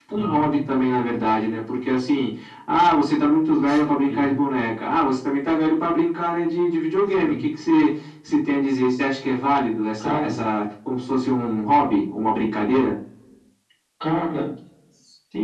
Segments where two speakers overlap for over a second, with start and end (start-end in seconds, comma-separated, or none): none